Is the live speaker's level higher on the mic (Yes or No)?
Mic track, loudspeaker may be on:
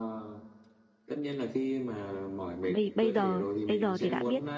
Yes